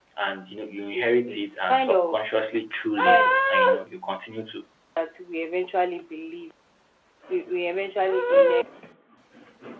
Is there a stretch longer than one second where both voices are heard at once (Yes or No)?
Yes